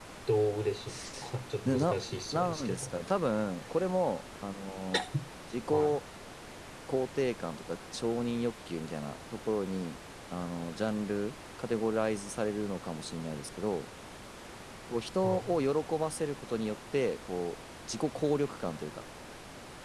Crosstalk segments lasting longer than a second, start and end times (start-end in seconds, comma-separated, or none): 1.6-2.9